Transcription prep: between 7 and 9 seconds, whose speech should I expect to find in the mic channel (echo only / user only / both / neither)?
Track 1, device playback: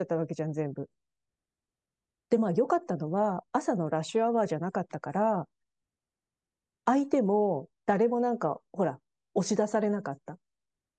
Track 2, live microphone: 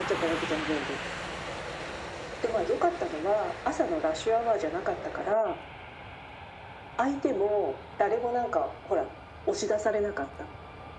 echo only